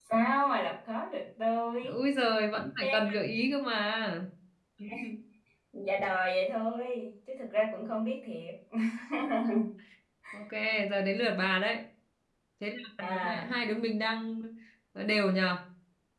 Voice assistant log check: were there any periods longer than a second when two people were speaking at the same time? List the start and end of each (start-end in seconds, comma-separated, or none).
none